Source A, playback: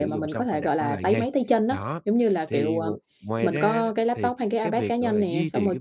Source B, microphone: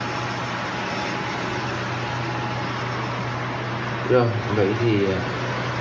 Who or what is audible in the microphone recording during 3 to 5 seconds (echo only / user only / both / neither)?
user only